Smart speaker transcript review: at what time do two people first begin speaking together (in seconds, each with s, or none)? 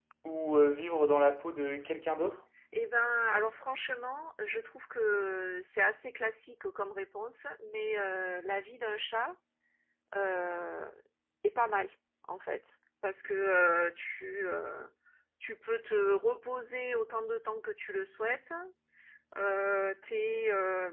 none